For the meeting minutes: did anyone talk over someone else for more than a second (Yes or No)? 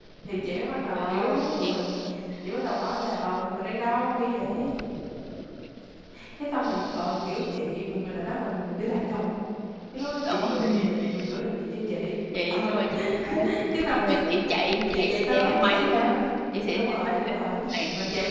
Yes